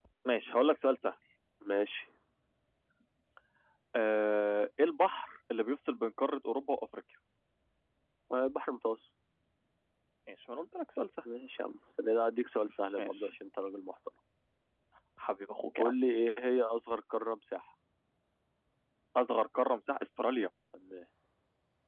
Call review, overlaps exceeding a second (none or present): none